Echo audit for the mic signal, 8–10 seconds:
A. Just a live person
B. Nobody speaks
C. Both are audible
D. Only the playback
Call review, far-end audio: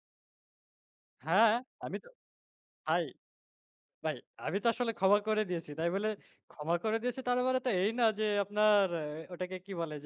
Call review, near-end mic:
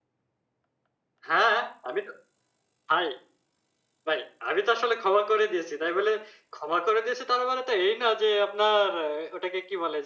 D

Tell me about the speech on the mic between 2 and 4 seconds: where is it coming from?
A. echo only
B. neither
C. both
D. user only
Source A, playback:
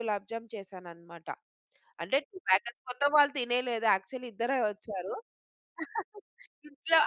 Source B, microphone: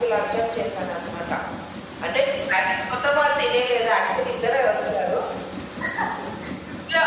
A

